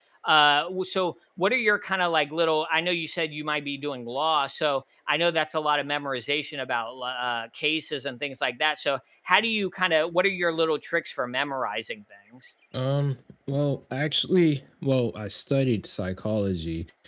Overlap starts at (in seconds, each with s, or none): none